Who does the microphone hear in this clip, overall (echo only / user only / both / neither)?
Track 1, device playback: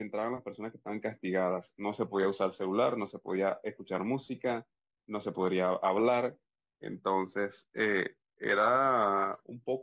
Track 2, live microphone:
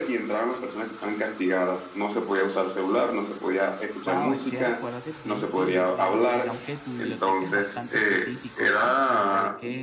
both